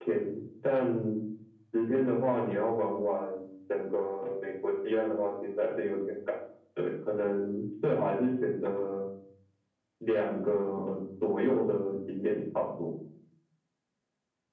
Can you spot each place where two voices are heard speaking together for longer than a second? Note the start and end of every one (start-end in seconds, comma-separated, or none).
none